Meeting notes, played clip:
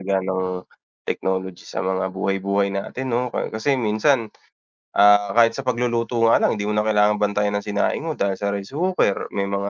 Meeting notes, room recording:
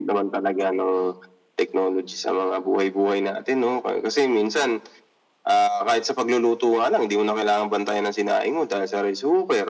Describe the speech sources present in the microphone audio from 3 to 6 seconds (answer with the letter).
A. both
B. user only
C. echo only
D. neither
C